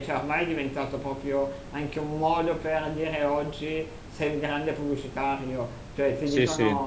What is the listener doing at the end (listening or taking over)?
listening